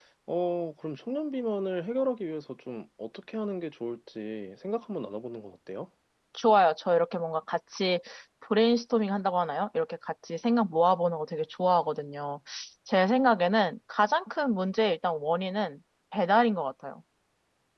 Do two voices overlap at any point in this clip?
No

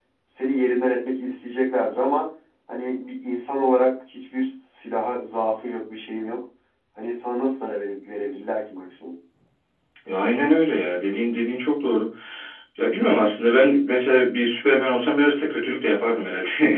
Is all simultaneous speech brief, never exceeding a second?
Yes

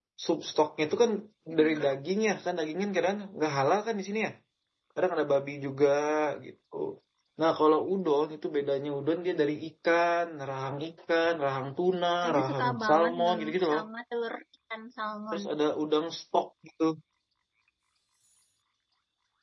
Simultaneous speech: Yes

